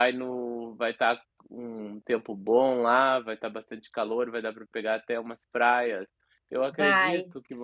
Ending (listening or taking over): listening